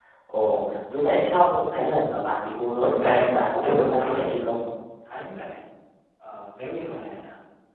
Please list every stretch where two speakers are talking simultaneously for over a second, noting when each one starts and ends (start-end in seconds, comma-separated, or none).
3.0-4.6